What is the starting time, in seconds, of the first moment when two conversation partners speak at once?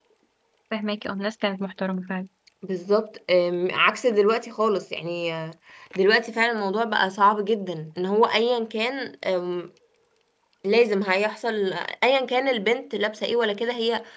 none

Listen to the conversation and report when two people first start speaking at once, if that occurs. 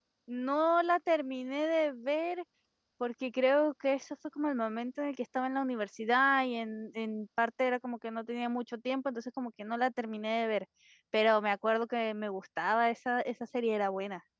none

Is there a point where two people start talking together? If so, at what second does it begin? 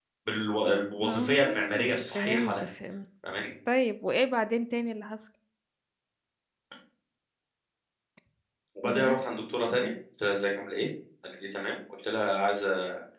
1.0 s

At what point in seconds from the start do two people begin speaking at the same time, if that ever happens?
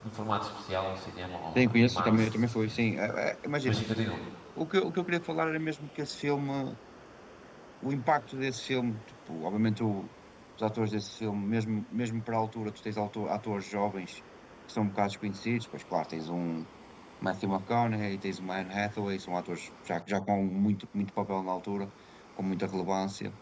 1.6 s

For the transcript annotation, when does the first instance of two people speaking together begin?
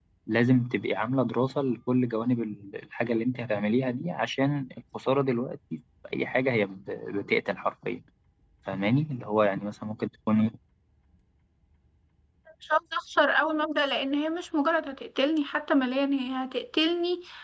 none

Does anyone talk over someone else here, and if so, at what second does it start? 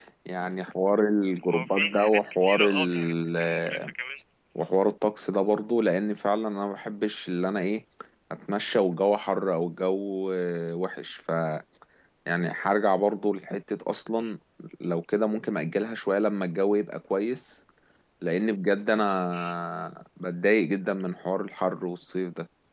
1.5 s

